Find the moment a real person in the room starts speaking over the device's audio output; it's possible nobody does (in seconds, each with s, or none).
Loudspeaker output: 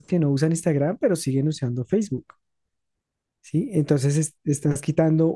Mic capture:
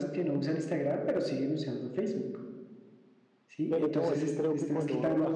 3.7 s